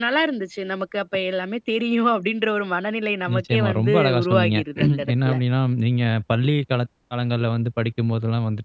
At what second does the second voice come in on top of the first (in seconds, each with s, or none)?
3.3 s